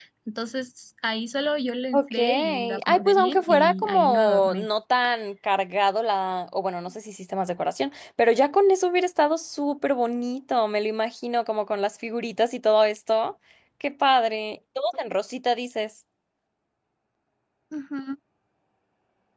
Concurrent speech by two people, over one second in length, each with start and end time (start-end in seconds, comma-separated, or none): 1.9-4.7